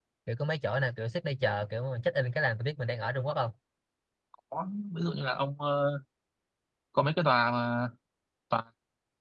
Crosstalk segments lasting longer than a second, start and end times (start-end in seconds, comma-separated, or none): none